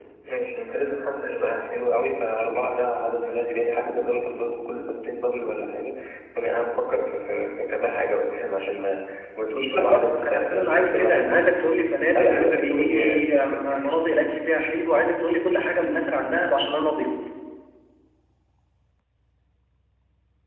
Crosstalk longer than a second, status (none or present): present